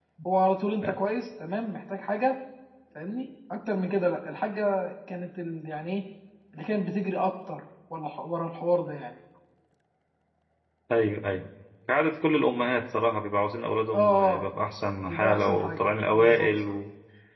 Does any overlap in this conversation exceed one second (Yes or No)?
Yes